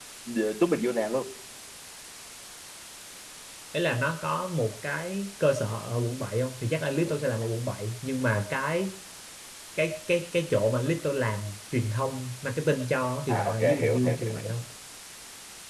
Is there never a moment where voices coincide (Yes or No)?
No